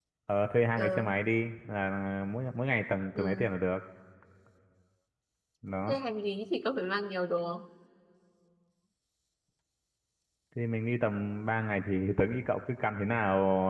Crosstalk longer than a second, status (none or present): none